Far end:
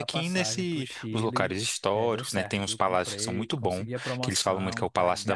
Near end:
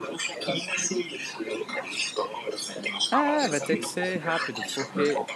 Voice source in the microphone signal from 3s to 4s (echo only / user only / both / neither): both